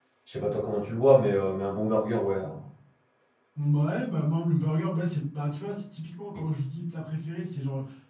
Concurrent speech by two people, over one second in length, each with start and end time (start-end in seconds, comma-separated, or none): none